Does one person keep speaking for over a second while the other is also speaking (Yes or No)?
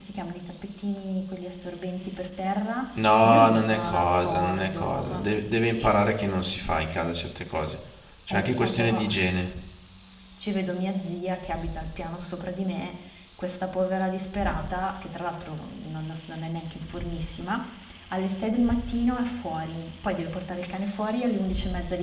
Yes